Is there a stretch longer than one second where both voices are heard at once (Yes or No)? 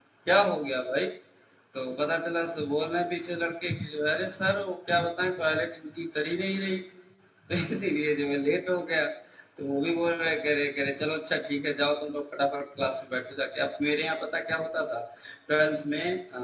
No